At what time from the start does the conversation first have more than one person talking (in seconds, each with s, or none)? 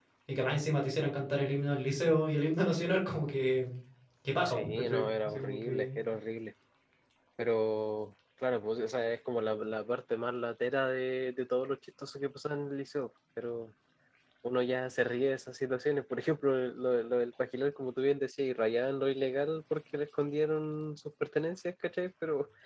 4.4 s